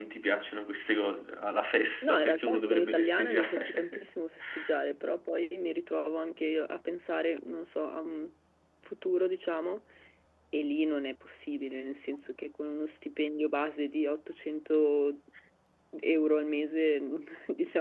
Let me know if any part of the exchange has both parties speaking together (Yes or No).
Yes